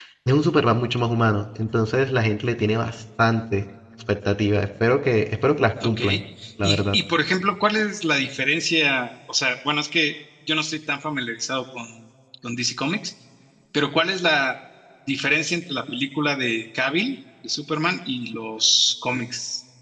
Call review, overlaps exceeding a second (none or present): none